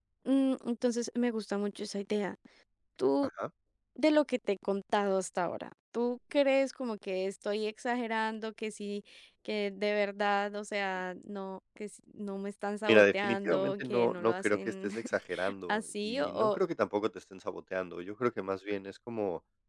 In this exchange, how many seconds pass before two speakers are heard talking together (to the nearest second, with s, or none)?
13 s